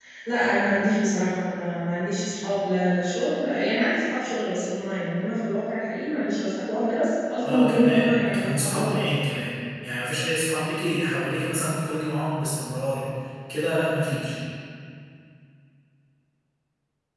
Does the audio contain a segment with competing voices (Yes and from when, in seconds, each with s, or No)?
Yes, from 7.4 s